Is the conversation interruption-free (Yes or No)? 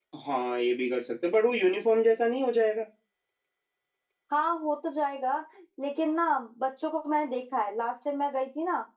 Yes